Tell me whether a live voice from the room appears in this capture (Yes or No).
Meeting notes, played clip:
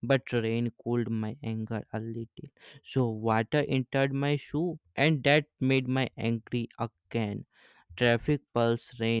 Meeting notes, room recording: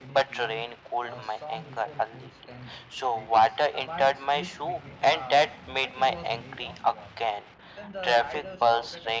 Yes